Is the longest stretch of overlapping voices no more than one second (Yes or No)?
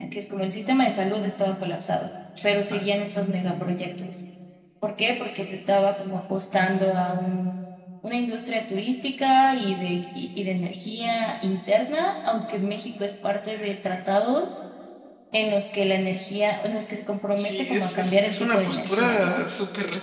No